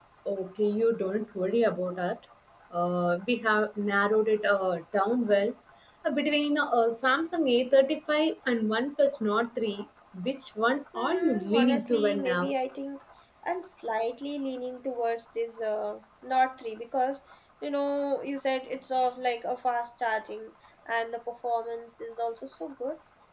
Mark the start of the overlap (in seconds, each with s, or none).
10.9 s